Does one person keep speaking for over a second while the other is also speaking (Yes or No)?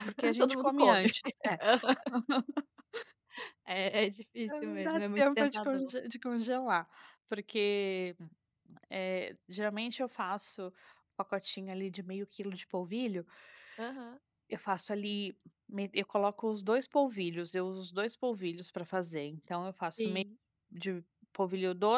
Yes